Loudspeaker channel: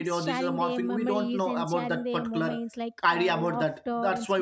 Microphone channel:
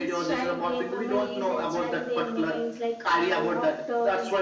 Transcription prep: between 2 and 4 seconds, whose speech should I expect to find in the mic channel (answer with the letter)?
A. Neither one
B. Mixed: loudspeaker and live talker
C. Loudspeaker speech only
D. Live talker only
C